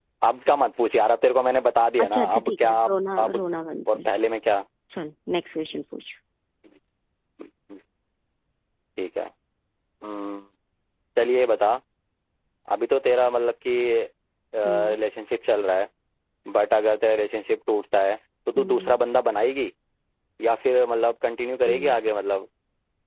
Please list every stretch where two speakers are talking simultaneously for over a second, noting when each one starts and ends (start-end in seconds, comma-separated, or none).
2.0-3.4